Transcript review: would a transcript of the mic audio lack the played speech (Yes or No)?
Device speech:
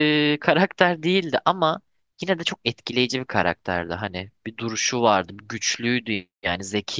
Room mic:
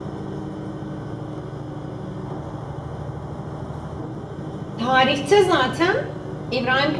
Yes